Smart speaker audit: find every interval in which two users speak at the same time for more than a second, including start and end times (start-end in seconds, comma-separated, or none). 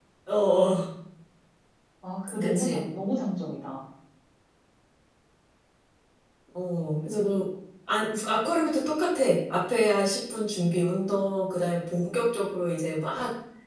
none